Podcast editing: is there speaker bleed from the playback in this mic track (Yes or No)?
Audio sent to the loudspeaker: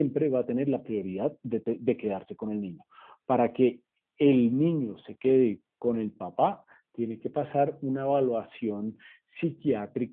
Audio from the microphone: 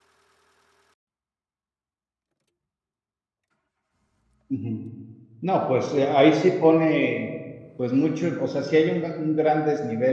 No